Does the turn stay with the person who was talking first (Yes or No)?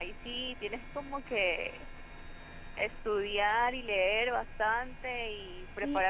No